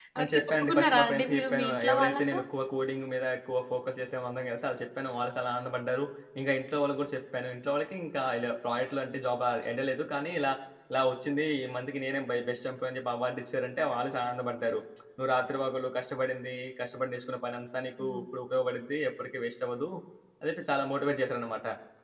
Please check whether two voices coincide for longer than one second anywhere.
Yes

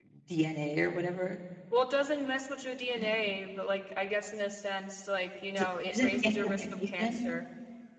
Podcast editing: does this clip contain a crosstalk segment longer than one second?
Yes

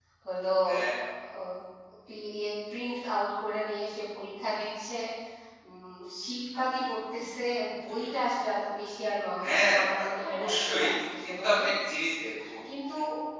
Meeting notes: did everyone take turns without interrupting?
No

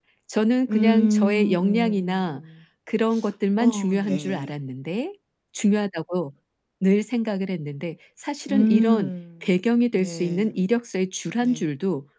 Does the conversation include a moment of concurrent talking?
Yes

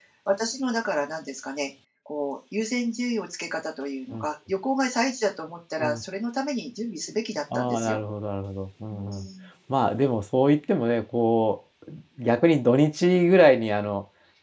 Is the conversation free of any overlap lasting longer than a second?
Yes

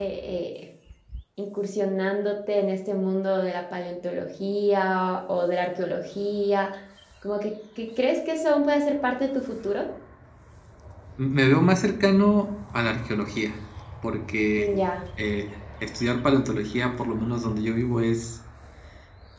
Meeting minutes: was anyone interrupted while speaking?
No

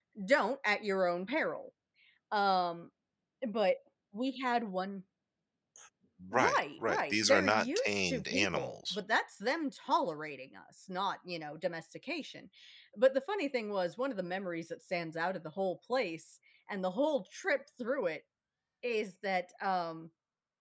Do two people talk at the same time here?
Yes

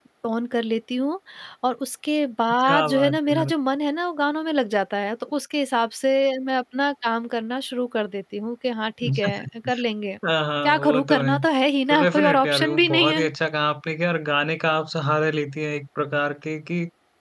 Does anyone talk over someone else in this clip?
Yes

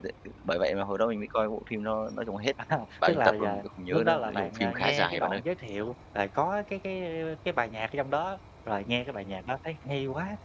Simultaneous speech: Yes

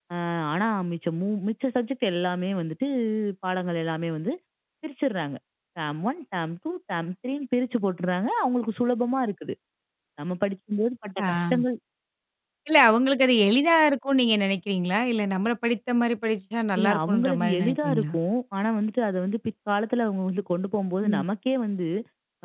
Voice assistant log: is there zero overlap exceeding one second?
No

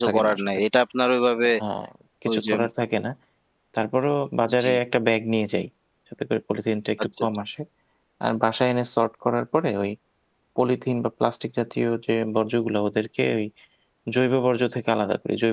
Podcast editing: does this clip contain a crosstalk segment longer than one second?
No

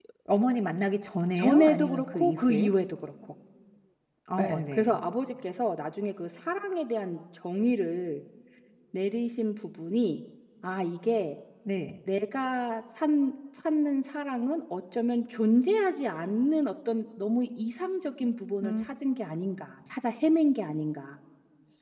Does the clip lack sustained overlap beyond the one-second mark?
No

